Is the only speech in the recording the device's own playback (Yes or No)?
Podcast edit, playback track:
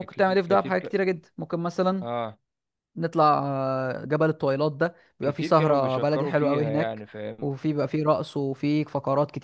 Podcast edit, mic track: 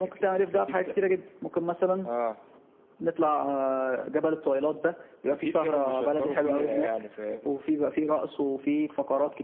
Yes